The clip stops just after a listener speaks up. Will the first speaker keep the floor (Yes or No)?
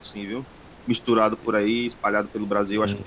No